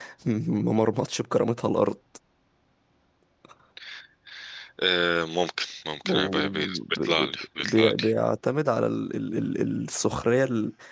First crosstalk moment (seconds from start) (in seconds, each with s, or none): 6.0 s